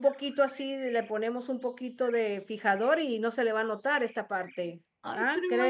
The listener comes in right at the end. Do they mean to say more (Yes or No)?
Yes